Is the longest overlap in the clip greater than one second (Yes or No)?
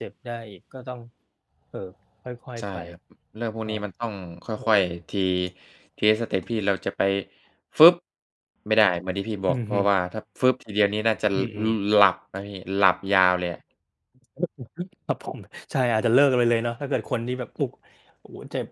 No